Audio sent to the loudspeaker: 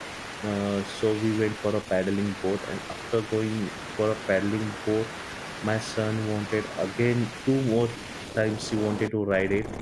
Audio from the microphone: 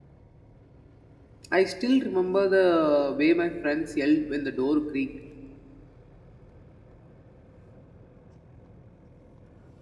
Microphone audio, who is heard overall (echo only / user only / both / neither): user only